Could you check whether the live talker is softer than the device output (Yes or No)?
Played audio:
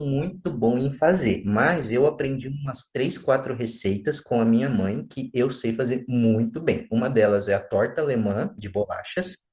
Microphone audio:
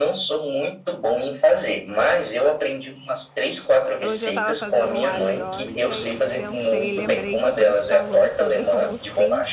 Yes